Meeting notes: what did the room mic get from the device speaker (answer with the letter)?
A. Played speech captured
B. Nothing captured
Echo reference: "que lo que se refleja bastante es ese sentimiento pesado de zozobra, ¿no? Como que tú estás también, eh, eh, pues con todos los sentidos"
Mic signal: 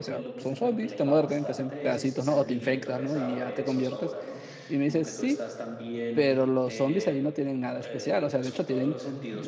A